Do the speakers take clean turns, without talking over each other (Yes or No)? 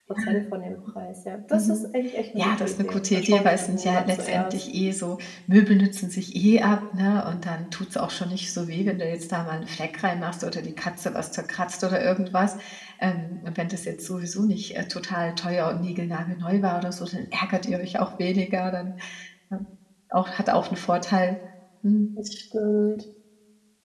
No